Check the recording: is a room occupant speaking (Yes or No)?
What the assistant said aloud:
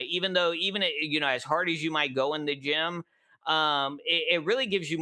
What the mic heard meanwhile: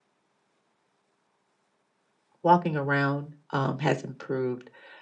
Yes